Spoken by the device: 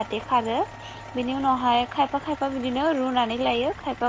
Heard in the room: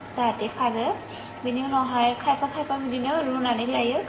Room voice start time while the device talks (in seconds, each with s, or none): none